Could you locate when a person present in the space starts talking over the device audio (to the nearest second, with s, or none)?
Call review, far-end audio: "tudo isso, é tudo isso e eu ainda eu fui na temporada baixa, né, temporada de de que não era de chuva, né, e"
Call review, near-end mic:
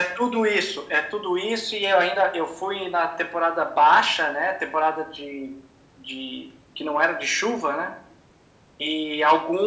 none